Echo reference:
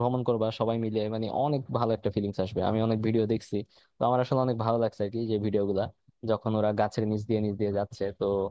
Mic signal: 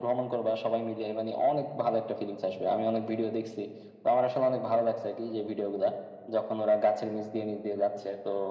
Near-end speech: none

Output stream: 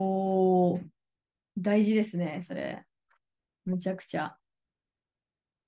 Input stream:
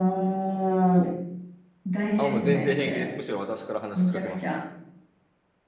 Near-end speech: present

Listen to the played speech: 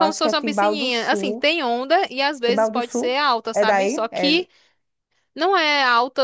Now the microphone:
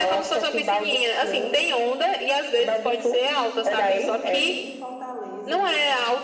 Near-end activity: present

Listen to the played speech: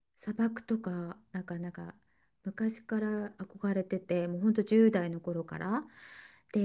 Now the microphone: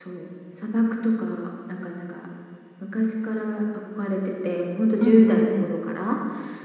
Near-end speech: present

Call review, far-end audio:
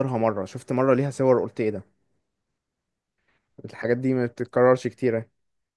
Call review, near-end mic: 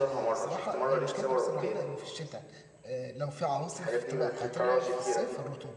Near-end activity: present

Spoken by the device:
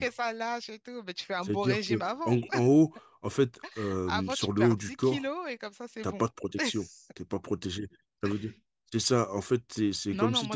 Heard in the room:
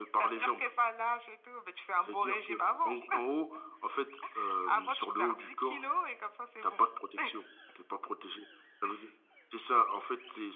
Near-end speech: none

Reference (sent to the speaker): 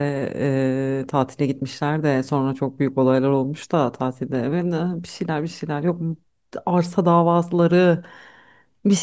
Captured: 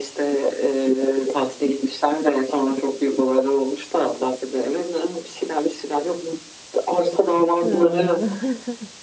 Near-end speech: present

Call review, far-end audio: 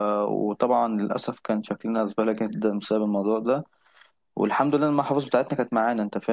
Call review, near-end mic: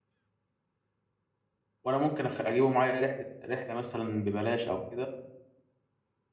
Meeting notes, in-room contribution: present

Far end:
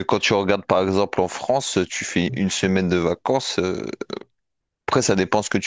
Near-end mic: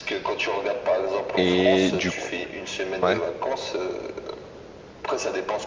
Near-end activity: present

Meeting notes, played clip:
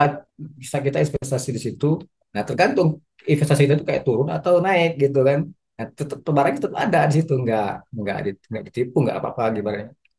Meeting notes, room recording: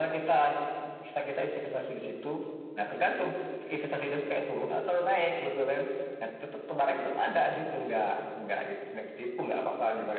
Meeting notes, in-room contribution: none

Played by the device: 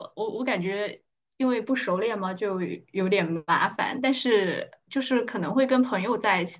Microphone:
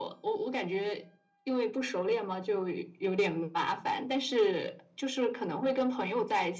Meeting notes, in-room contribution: none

